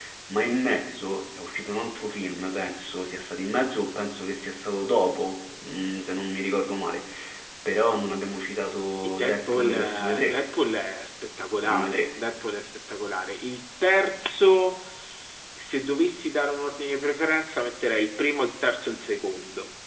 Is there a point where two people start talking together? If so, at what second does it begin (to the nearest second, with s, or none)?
9 s